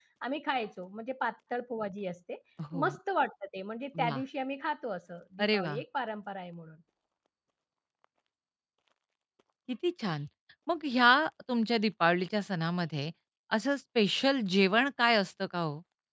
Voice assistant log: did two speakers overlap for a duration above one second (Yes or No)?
No